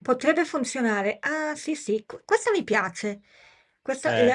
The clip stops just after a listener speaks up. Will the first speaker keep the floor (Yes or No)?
Yes